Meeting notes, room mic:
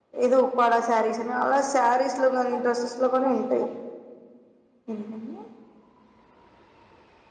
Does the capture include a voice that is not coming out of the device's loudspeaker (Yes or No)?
Yes